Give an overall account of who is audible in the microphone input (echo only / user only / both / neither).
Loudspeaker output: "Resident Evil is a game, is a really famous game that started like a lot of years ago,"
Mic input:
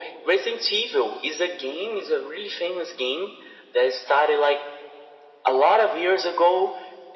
echo only